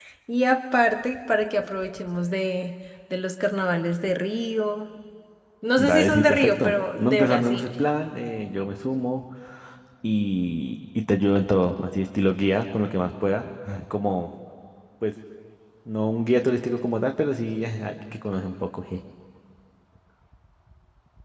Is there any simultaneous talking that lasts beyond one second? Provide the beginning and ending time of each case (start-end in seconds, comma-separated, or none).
5.8-7.7